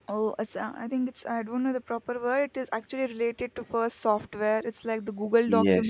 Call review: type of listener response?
taking over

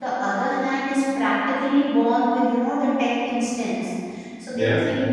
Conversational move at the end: listening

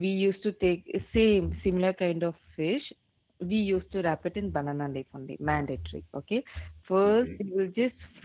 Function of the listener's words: listening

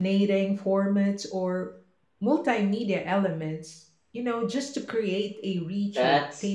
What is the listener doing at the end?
taking over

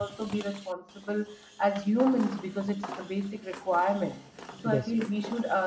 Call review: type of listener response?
listening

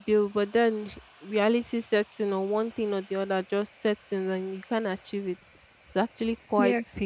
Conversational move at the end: listening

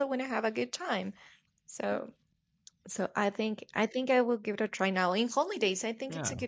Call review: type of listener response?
listening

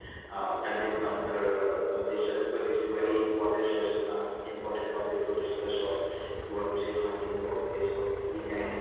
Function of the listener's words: taking over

